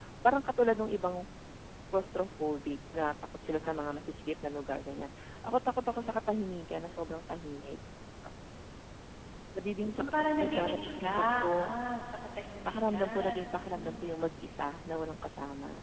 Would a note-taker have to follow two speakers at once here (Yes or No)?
Yes